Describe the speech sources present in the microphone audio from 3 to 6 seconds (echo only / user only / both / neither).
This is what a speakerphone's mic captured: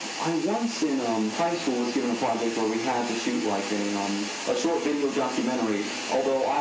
echo only